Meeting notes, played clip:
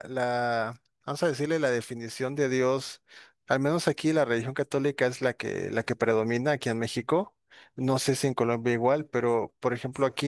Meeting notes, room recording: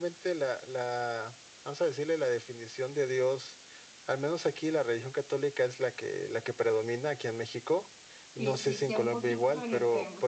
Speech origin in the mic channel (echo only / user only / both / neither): both